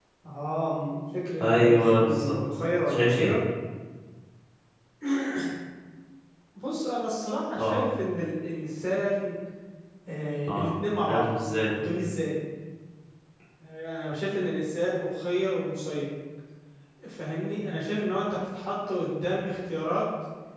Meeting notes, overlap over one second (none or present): present